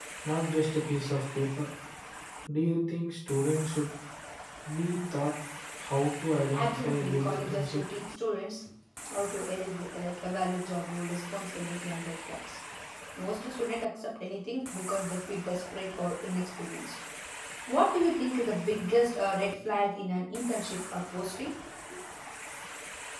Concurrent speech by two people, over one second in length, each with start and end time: 6.5-7.8

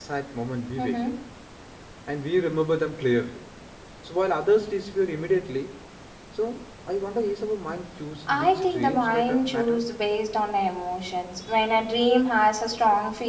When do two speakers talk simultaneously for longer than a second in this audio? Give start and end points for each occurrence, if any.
8.3-9.8

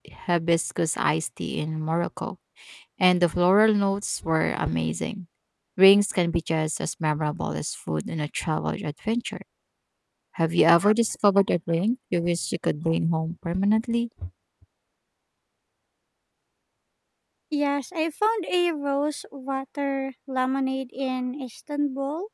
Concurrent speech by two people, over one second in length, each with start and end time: none

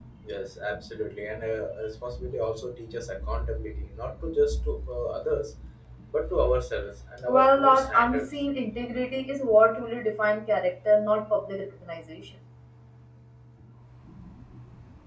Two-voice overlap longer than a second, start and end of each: 7.3-8.5

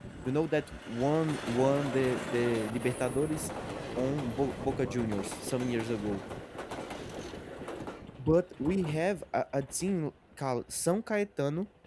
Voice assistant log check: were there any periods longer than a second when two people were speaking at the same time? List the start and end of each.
4.0-5.7

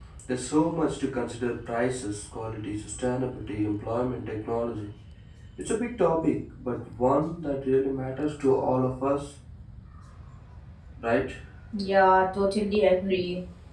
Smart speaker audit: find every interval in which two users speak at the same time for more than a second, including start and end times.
none

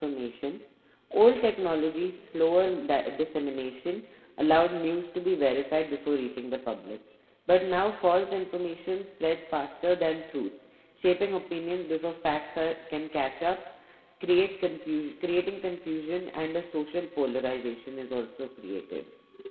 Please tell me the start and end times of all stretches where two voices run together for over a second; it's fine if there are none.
none

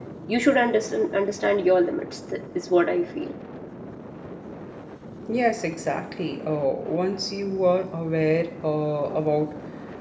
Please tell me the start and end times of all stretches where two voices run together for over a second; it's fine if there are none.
none

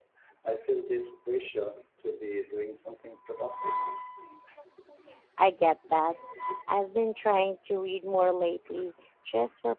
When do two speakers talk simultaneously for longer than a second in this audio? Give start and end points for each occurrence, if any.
none

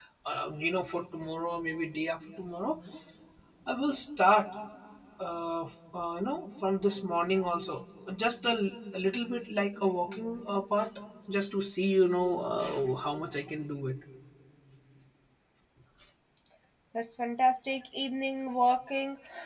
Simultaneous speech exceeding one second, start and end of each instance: none

